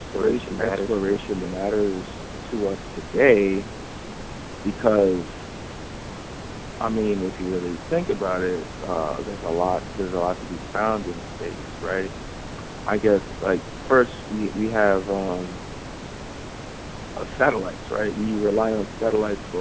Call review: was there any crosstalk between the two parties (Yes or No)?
Yes